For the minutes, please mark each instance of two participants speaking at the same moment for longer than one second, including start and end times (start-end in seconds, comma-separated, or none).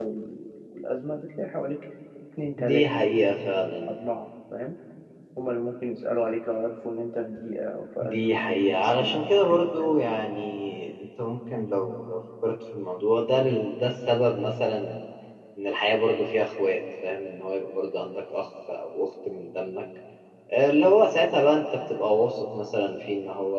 8.0-9.9